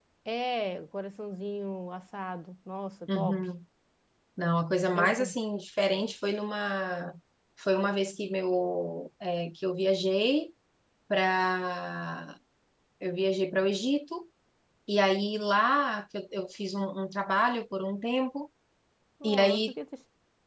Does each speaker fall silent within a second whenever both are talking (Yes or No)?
Yes